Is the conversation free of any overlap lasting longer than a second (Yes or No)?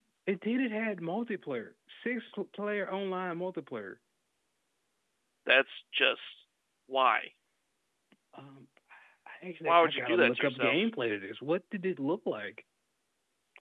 No